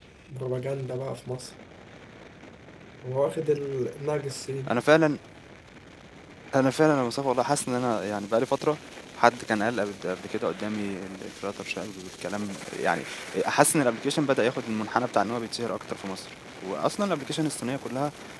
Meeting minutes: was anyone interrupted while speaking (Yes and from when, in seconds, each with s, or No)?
No